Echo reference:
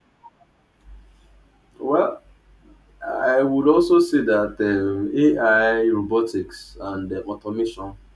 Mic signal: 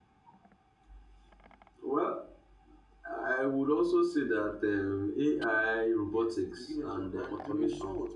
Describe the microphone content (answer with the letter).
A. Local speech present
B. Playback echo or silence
A